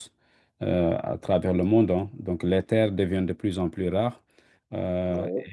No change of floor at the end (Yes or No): Yes